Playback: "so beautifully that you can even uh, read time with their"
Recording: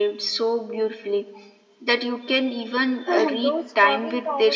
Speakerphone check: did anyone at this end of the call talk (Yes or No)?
Yes